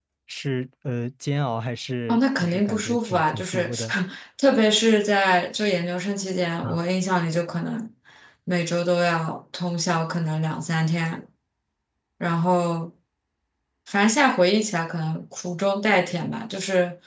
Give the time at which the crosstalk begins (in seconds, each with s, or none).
2.1 s